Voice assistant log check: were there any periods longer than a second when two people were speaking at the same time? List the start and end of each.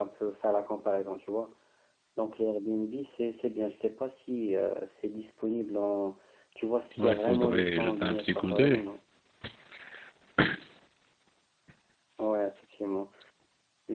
7.0-8.8

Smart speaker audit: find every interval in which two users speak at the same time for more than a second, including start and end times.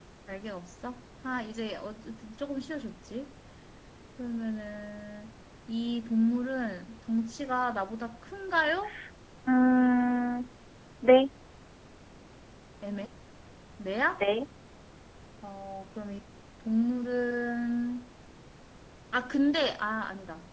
none

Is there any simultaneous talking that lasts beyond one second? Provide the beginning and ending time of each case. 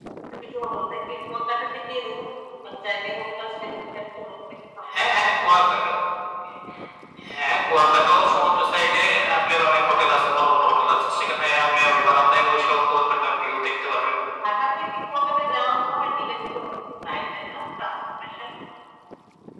none

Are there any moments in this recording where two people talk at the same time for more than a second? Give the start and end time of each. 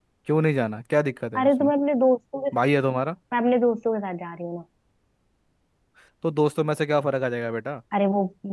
none

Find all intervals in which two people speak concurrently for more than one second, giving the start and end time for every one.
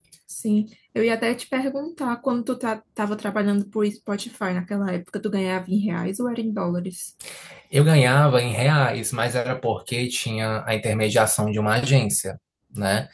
none

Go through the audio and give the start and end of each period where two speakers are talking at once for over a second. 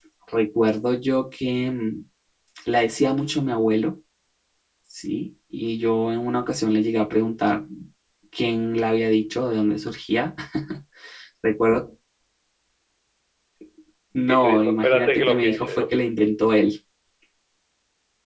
14.3-15.9

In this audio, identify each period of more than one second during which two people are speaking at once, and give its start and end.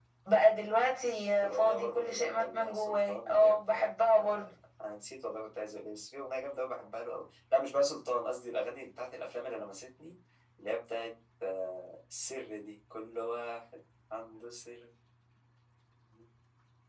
1.4-3.9

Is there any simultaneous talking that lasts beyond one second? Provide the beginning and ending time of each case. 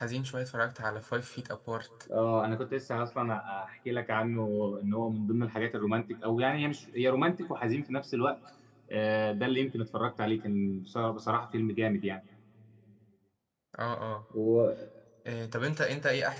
none

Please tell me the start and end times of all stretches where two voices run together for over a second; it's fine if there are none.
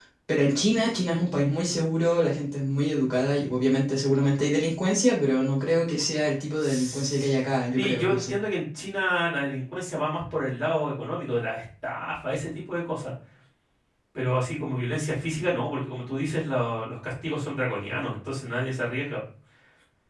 6.6-8.4

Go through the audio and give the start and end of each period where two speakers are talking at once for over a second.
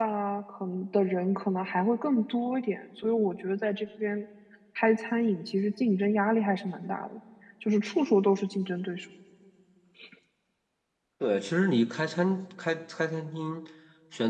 none

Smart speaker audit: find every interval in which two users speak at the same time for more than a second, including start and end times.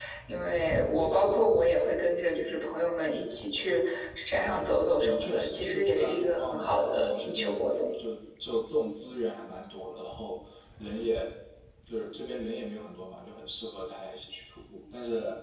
4.8-7.7

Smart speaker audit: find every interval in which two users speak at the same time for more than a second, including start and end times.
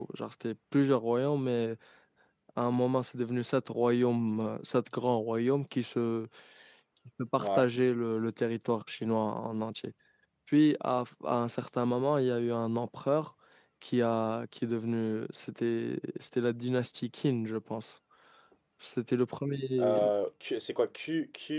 none

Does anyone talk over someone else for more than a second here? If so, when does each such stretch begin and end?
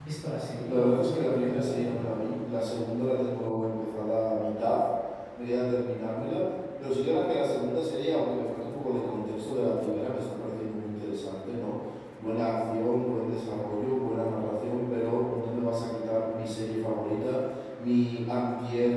0.6-2.0

